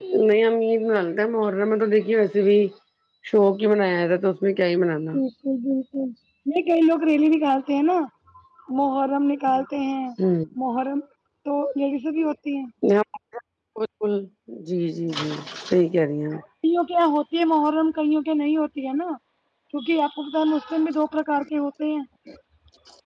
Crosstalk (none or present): none